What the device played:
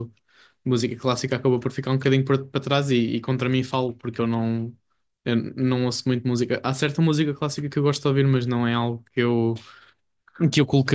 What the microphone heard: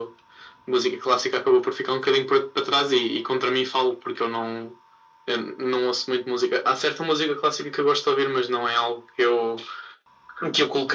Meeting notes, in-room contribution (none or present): none